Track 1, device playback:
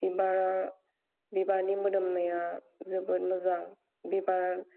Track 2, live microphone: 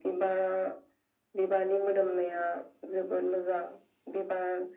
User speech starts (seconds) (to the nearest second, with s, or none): none